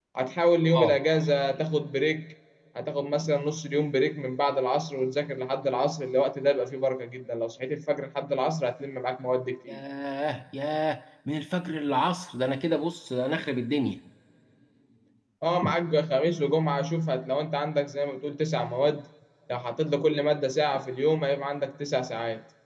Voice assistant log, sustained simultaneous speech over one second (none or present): none